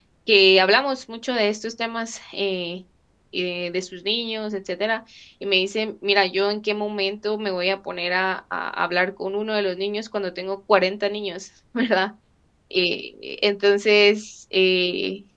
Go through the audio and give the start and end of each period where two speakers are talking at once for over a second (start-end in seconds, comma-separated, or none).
none